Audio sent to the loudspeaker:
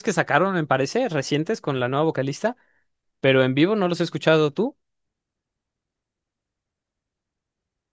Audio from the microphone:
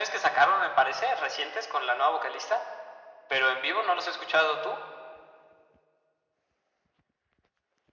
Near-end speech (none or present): none